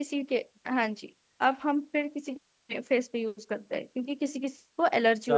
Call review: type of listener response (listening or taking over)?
taking over